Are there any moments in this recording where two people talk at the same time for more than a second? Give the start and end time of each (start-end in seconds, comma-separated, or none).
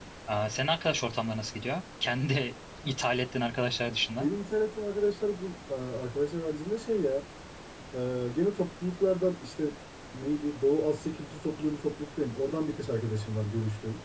none